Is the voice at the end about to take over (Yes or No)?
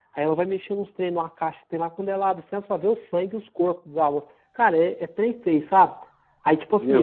No